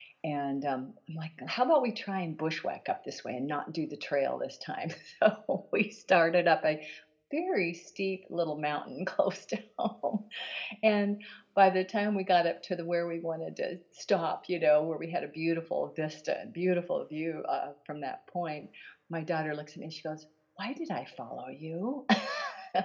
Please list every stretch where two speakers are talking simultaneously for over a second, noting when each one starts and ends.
none

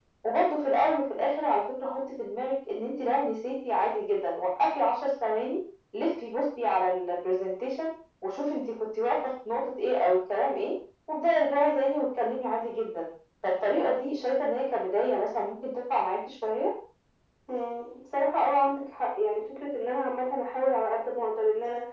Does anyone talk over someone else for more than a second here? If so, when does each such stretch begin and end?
none

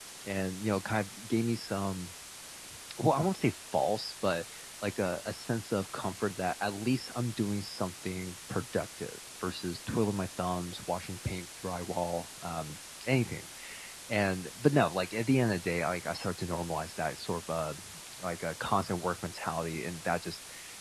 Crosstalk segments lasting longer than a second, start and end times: none

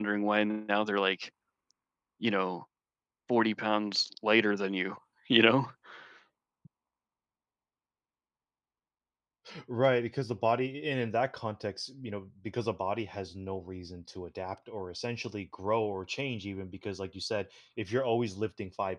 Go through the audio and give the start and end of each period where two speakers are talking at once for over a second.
none

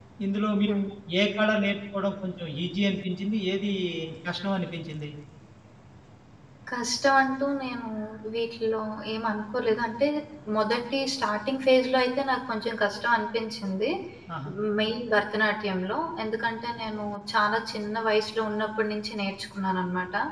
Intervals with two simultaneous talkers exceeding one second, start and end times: none

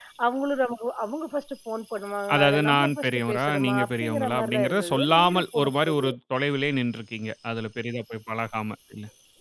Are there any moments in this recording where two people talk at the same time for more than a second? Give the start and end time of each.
2.3-6.0

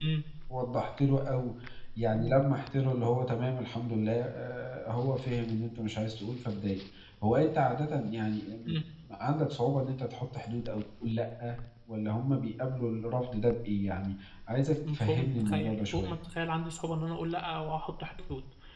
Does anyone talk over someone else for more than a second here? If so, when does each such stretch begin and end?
14.9-16.2

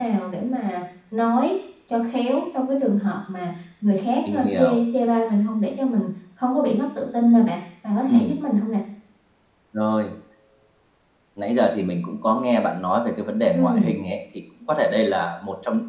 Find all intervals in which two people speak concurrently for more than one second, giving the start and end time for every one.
none

